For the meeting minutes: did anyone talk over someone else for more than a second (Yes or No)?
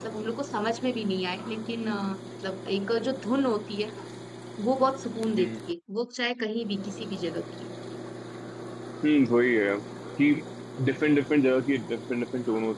No